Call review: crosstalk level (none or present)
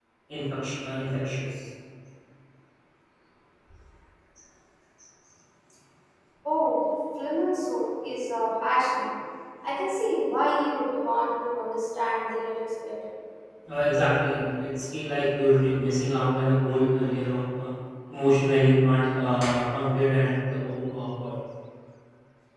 none